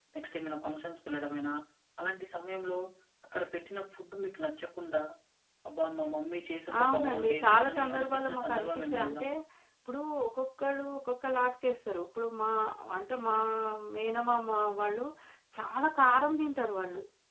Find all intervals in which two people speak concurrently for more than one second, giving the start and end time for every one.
6.8-9.2

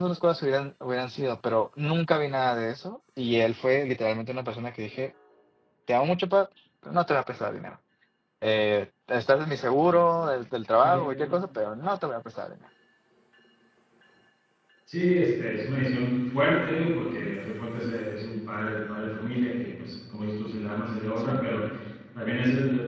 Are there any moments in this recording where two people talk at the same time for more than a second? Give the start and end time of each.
none

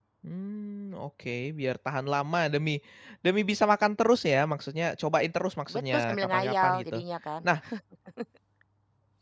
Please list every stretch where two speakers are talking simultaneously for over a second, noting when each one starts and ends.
5.8-7.0

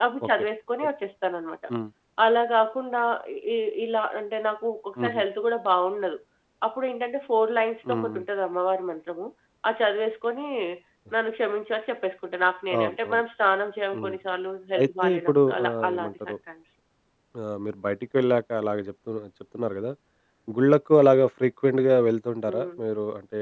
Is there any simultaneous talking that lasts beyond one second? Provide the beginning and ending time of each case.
14.8-16.3

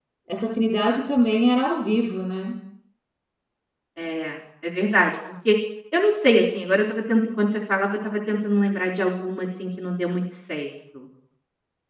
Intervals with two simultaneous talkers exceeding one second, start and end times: none

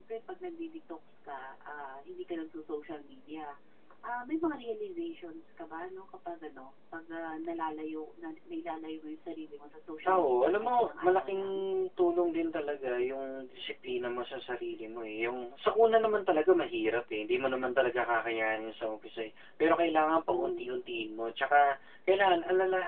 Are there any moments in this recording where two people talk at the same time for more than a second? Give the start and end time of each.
10.1-11.4

